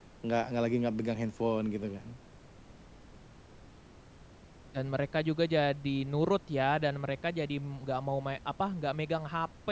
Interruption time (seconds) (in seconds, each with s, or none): none